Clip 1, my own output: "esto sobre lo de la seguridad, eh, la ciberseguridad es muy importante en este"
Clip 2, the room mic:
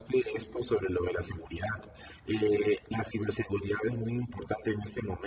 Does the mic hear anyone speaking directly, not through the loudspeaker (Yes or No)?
No